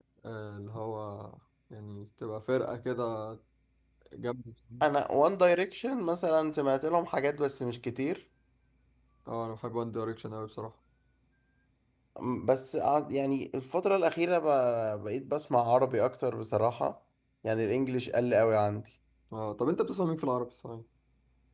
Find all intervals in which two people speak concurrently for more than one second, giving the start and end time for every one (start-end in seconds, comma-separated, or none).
none